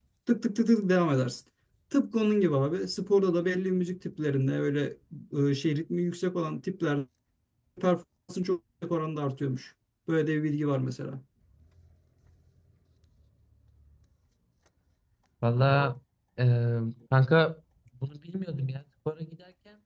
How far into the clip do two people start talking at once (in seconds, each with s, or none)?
none